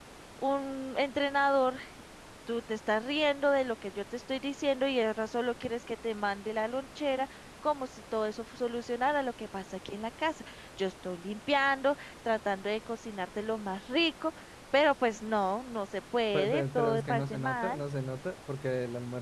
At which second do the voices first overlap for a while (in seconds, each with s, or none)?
16.3 s